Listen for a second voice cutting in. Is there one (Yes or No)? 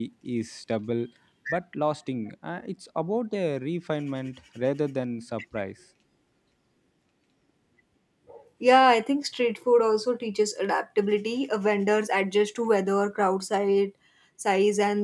No